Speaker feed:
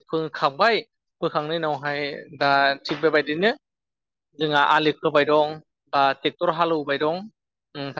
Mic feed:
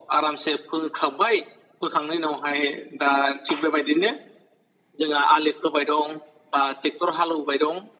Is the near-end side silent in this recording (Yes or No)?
Yes